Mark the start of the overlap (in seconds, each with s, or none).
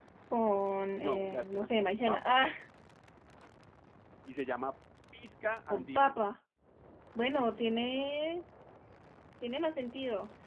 1.0 s